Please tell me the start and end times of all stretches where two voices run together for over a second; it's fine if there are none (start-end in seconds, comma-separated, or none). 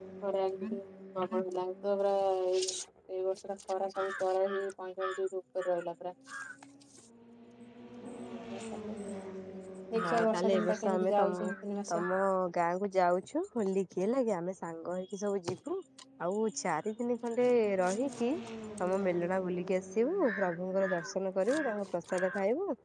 10.0-11.5